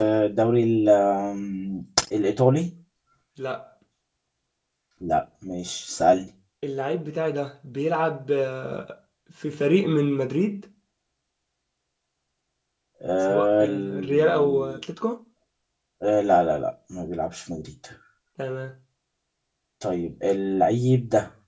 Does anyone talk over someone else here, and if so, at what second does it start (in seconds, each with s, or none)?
13.3 s